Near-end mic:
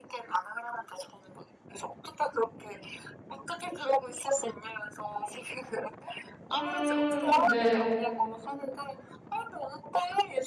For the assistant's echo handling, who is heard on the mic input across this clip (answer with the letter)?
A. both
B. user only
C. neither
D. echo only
A